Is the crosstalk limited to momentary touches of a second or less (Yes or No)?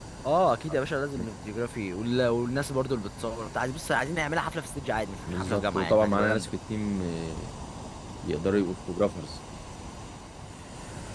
No